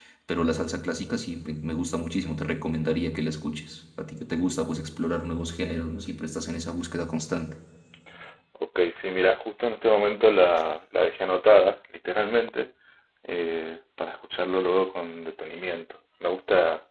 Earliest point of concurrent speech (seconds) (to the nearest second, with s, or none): none